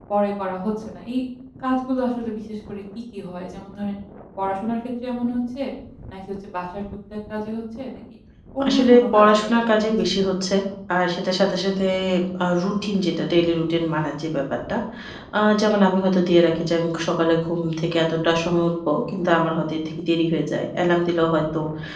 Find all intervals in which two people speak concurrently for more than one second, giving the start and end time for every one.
8.7-10.2

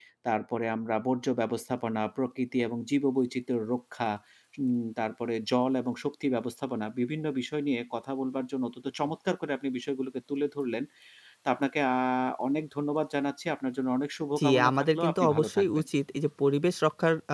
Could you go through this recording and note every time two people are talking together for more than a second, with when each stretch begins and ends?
14.4-15.9

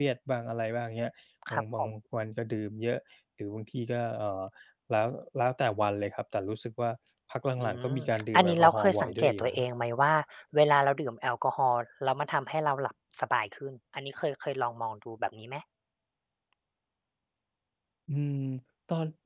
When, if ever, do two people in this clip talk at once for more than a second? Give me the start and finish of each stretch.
8.3-9.7

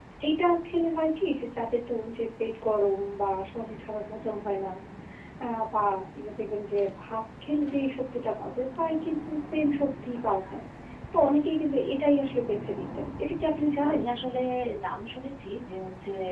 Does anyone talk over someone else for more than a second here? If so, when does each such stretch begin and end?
none

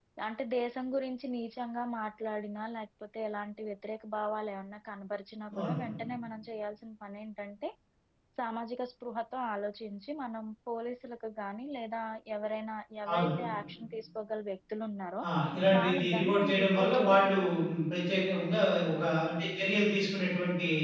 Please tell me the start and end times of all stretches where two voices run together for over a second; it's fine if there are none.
15.8-17.3

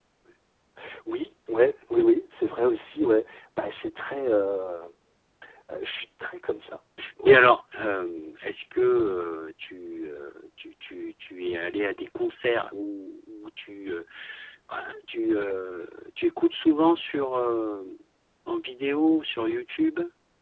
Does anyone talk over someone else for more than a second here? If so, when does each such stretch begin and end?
none

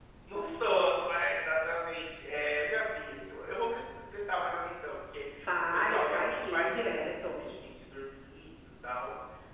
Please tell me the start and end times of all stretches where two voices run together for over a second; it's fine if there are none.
5.7-7.4

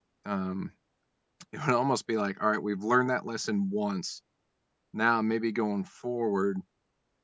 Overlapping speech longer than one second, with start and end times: none

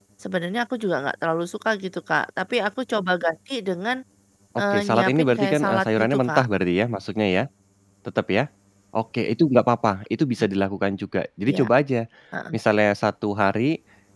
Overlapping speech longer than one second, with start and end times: 4.7-6.4

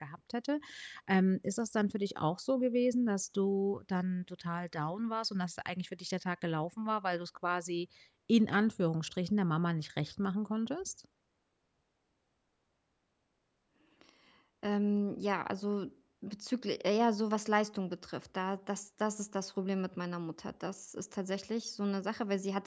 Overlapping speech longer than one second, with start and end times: none

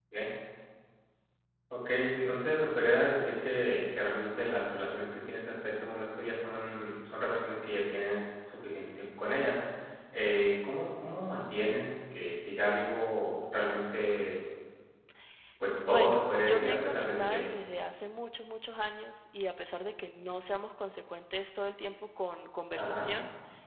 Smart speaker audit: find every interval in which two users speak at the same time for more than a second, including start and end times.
15.9-17.6

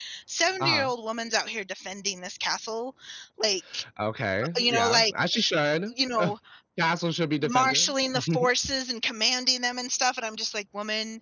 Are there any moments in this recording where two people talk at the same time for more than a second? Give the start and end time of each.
none

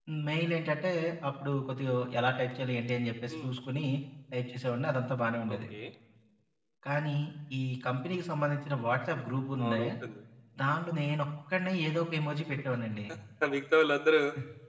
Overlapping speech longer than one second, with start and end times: none

